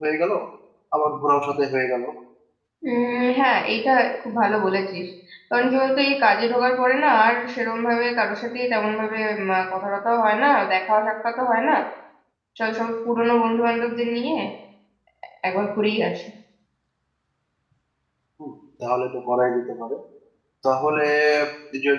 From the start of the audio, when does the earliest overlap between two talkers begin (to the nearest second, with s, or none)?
none